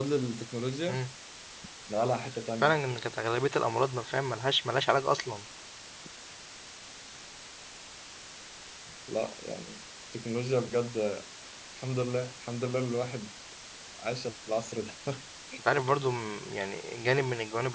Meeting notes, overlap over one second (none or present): none